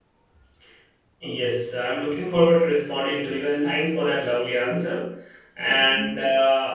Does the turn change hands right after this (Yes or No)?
No